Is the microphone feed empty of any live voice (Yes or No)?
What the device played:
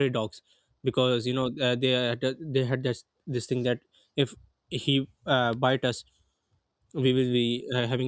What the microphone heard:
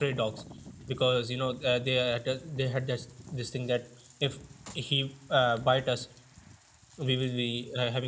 Yes